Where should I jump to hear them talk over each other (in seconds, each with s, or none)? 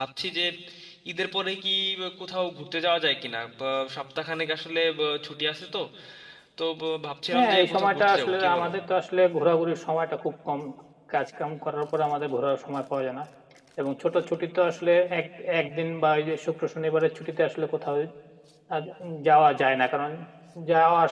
7.3 s